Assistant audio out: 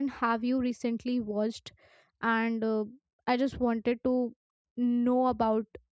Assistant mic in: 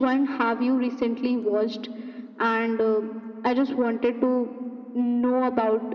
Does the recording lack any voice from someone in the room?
Yes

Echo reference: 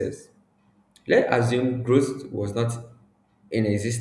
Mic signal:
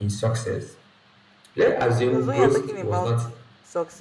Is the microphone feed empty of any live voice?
No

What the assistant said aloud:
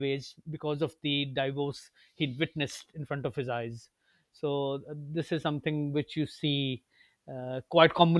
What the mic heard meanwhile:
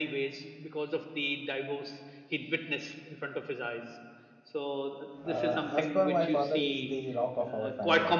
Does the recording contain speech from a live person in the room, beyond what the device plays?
Yes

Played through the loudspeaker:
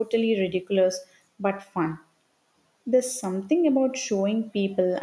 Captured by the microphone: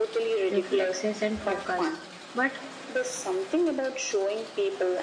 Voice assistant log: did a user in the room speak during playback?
Yes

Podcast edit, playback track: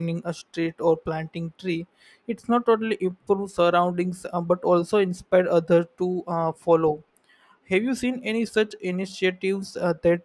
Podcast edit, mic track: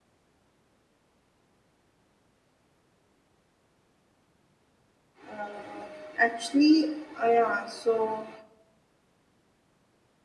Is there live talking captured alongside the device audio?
Yes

